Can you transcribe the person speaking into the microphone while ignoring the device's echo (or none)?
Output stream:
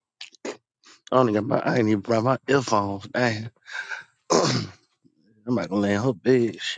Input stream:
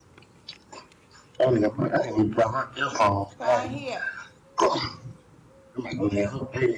come here.